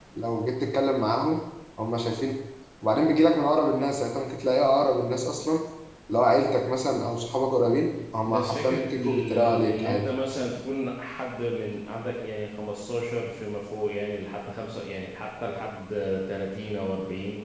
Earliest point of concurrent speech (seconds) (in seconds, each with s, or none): 8.3 s